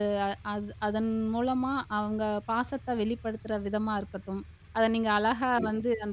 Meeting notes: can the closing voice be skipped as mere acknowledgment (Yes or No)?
Yes